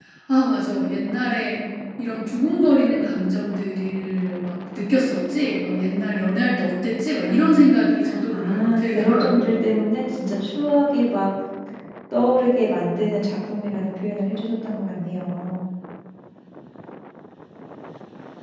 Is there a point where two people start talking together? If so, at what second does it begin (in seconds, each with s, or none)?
7.2 s